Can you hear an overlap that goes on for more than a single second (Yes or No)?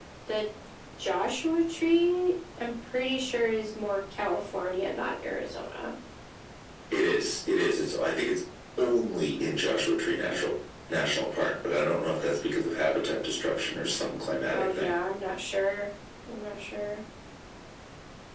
No